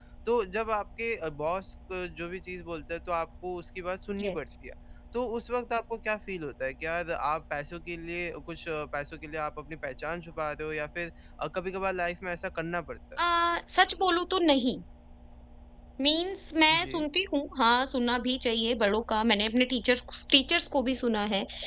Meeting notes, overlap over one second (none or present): none